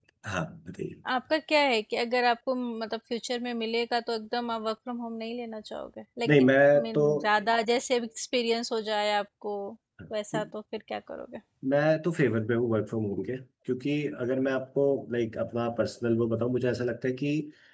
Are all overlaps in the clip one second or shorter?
Yes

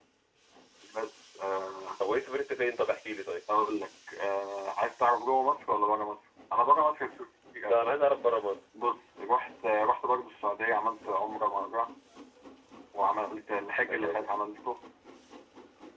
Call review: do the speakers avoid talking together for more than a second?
Yes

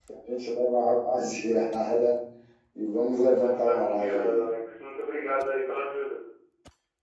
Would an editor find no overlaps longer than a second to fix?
No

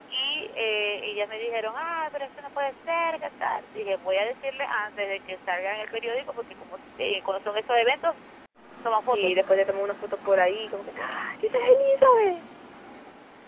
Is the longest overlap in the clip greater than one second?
No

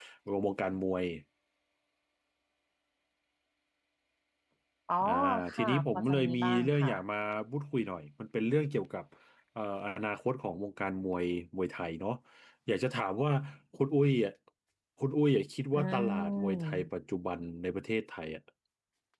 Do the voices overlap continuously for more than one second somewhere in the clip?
Yes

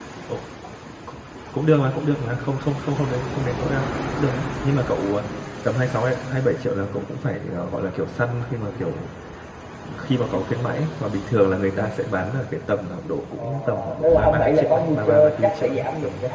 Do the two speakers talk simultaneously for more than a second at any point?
Yes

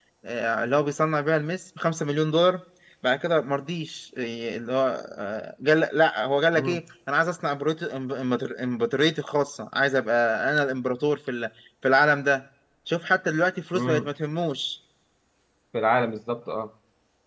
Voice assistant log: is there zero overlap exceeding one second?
Yes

